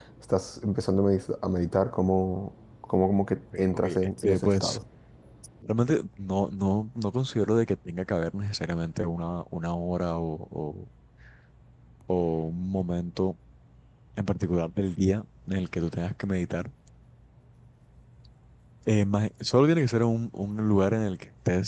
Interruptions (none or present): present